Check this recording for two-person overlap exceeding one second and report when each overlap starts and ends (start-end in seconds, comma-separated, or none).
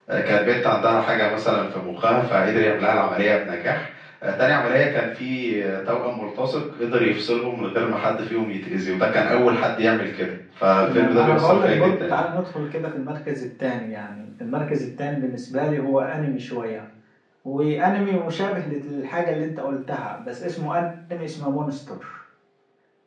10.8-12.2